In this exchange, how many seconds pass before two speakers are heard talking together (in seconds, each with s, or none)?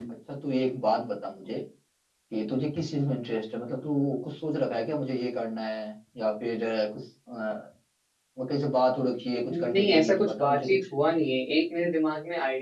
9.5 s